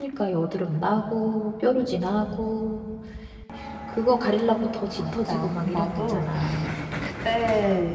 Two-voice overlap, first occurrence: 5.0 s

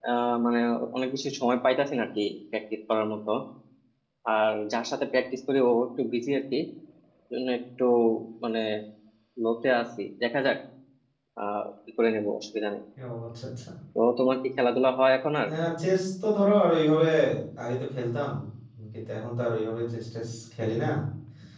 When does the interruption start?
none

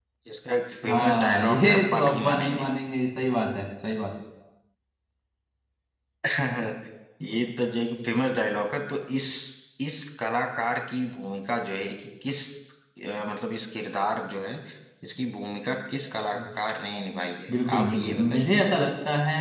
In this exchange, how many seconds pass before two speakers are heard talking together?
0.9 s

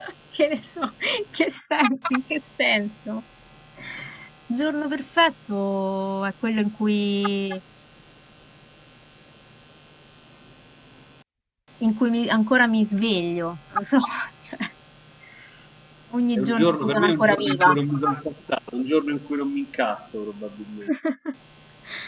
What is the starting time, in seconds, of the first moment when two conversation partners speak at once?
16.4 s

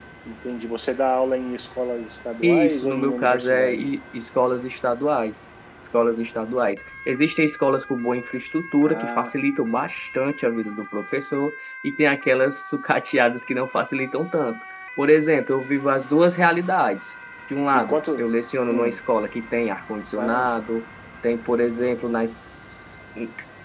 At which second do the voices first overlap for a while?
2.4 s

